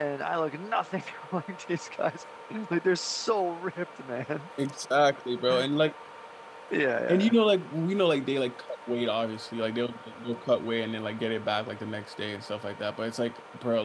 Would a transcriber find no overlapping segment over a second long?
Yes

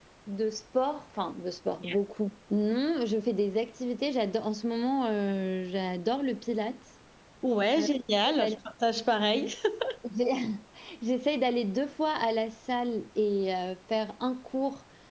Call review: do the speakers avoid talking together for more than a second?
Yes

